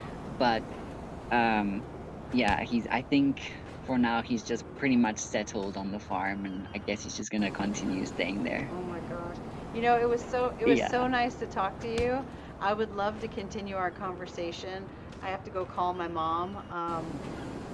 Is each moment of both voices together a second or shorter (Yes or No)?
Yes